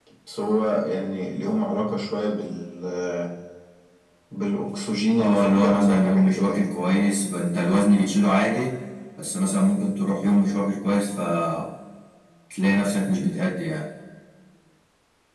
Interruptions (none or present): present